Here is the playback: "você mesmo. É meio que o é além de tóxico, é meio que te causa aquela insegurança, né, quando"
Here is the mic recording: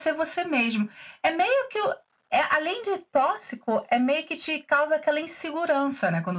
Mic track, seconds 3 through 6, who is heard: echo only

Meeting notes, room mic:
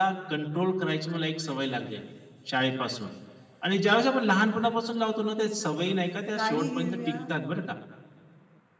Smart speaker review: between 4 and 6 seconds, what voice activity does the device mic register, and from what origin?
echo only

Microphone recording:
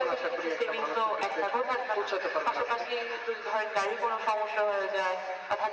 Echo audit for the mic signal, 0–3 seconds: echo only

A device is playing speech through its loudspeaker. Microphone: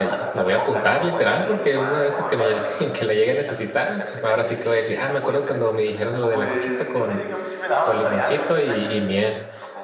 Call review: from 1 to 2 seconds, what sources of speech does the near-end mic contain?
both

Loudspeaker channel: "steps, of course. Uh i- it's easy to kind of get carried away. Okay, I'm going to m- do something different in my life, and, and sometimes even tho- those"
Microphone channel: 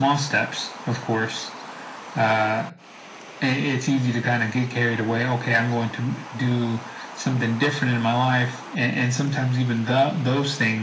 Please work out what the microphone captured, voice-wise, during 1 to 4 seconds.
echo only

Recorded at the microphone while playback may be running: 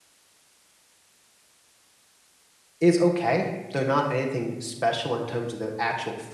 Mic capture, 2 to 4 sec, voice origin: user only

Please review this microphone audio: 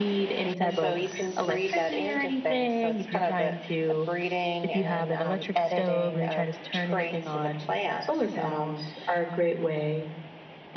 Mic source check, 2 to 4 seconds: echo only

